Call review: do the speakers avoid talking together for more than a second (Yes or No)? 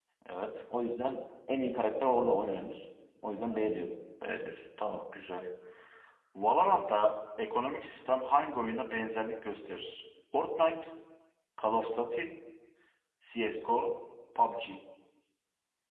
Yes